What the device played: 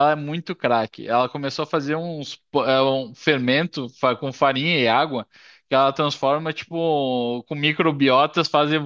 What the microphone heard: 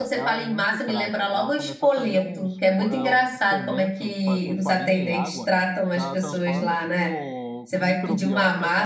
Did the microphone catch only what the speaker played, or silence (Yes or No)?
No